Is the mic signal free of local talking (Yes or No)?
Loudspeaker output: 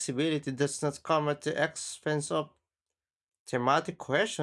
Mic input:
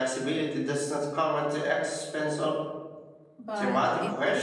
No